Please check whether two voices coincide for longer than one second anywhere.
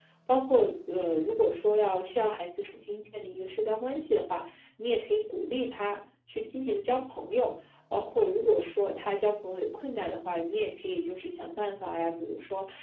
No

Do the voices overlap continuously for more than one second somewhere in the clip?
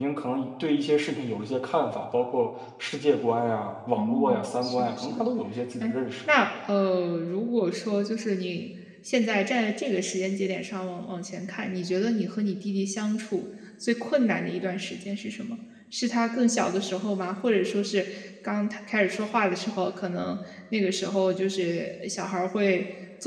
Yes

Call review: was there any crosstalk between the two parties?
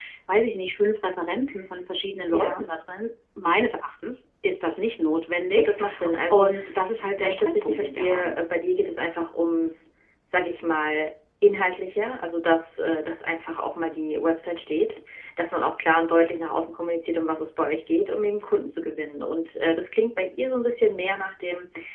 Yes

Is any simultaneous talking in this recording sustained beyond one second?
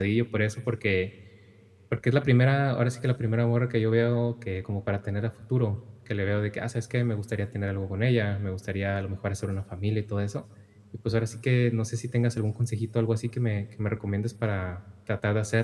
No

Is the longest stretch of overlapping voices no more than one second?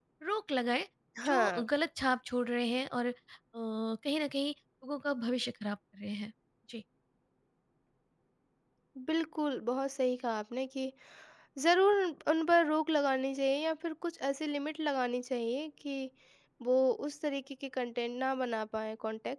Yes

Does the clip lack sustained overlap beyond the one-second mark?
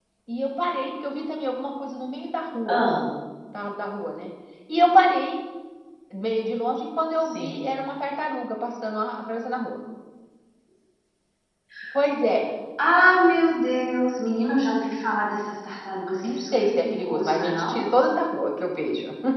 No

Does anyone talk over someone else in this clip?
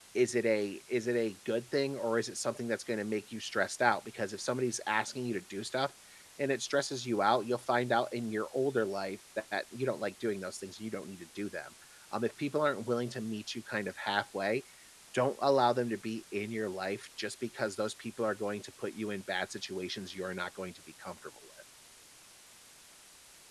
No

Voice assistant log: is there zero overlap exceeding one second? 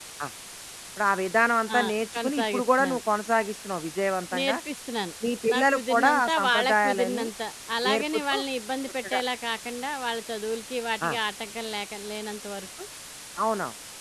No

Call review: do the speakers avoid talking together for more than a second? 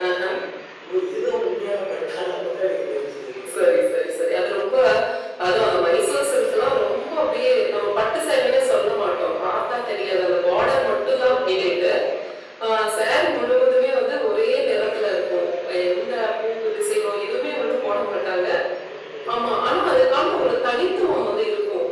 Yes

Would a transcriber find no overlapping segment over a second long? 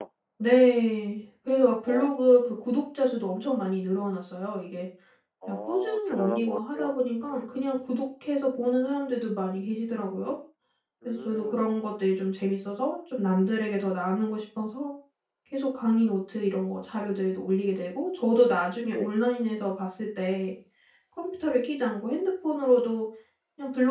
No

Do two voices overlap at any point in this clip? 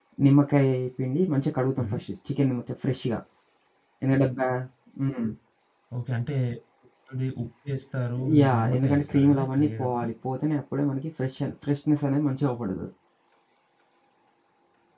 Yes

